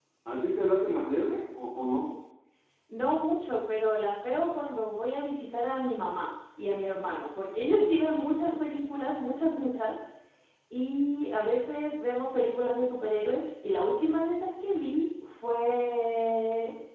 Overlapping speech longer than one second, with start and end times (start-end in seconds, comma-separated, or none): none